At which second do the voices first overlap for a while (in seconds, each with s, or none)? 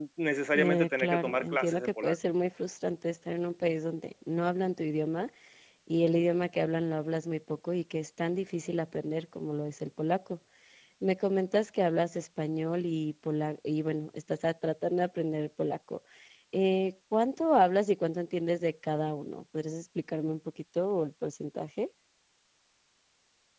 0.6 s